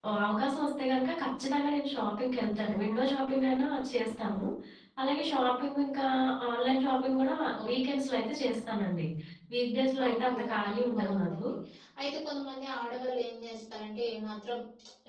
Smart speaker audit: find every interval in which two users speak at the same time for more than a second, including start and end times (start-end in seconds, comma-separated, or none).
10.0-11.4